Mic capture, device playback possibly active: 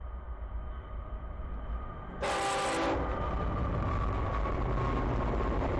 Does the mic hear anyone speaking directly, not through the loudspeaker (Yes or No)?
No